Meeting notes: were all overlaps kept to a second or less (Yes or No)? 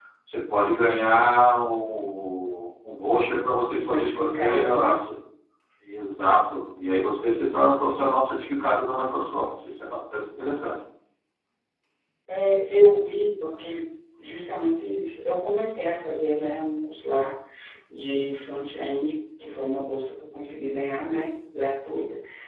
No